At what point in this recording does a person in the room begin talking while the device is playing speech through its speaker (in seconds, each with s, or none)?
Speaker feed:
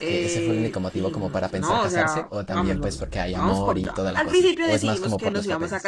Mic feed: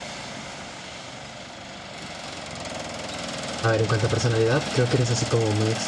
3.6 s